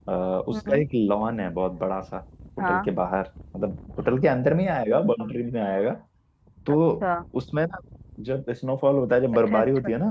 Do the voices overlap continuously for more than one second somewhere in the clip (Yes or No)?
No